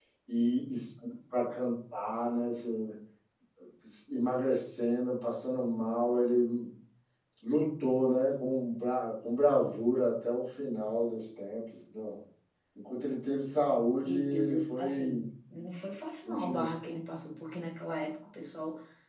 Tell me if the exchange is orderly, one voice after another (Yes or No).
No